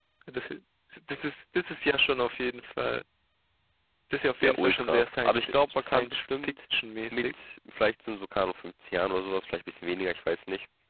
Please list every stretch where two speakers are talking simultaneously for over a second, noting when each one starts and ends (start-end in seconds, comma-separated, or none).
4.4-6.5